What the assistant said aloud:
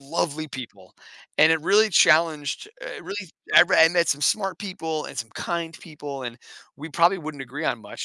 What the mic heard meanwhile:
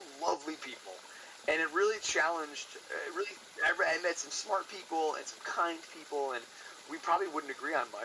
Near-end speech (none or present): none